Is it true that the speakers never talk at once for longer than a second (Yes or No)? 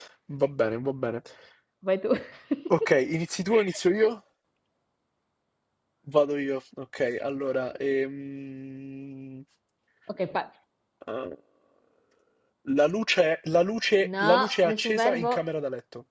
No